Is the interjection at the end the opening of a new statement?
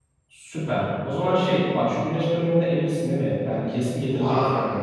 Yes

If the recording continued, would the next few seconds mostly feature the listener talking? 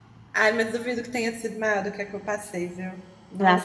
Yes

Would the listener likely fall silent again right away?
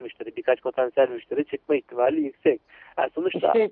Yes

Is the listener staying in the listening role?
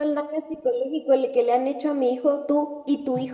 No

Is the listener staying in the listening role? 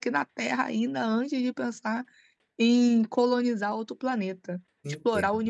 No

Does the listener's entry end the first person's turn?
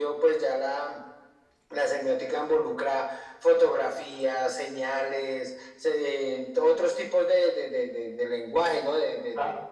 Yes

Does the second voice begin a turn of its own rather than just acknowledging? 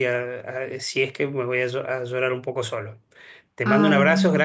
No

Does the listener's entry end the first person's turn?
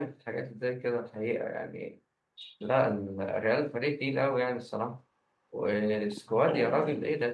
No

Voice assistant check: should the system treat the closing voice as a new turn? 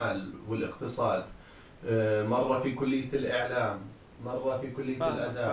Yes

